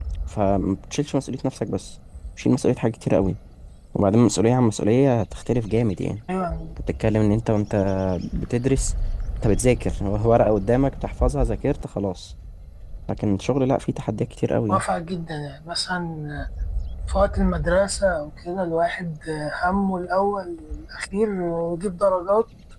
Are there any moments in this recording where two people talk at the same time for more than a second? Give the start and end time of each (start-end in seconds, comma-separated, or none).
none